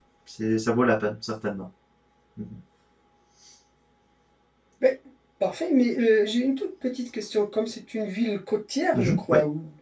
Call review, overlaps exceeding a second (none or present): none